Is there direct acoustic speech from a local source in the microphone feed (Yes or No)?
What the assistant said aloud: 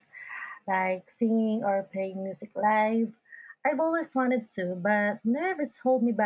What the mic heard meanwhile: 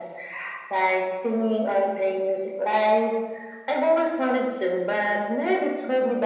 No